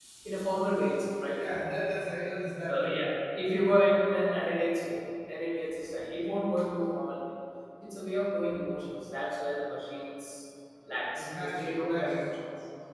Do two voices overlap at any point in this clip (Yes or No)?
Yes